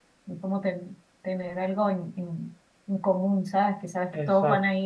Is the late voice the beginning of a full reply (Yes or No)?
No